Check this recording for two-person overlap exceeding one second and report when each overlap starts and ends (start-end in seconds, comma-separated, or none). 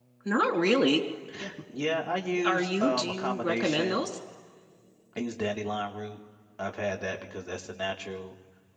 2.5-4.1